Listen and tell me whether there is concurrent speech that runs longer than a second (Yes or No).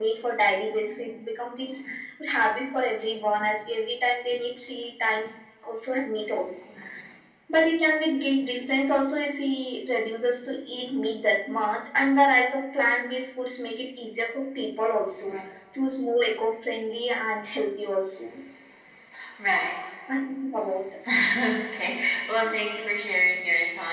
No